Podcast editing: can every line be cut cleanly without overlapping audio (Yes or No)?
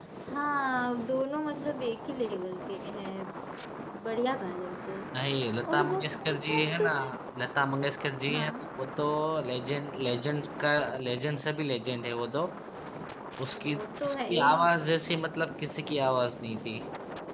No